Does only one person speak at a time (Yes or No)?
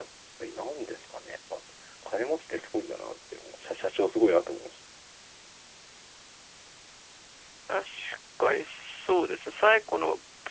Yes